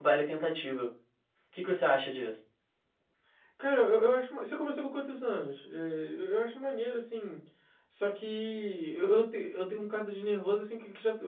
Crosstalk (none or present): none